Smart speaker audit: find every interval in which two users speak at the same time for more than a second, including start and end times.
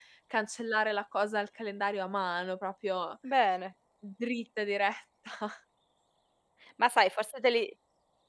none

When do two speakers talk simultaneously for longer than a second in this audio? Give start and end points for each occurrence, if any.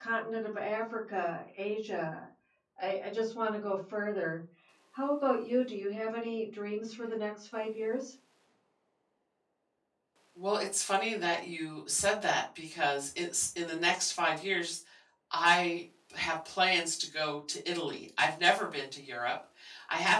none

